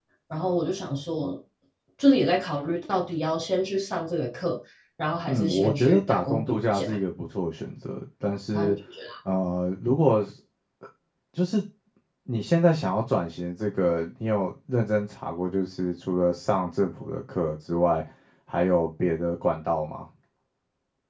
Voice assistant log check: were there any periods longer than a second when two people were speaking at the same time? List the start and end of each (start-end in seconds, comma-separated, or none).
5.3-6.8